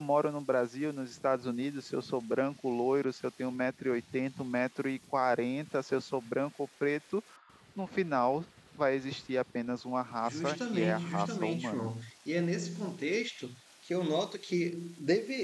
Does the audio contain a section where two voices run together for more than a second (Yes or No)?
Yes